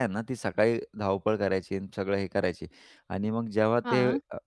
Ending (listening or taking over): listening